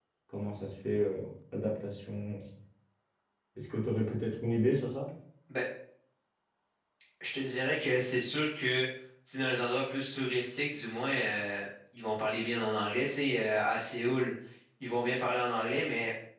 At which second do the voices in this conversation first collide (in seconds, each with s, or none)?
none